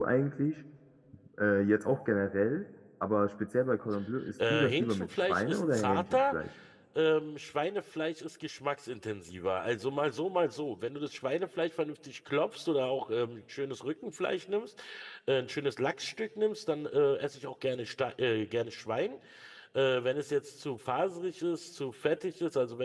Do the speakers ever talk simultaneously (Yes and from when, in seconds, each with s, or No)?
Yes, from 4.4 s